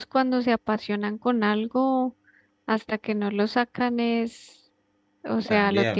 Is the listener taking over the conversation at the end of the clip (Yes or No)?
No